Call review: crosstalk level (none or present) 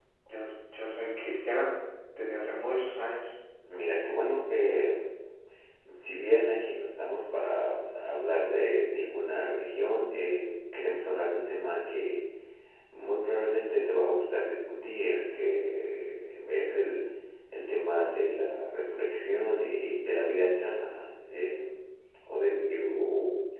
none